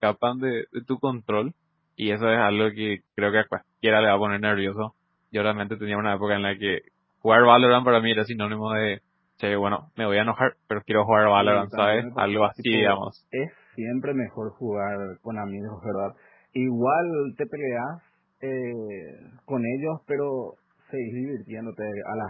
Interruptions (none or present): present